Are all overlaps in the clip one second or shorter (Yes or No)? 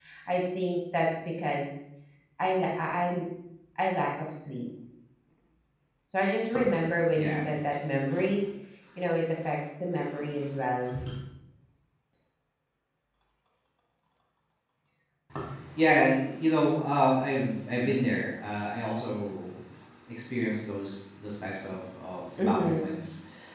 Yes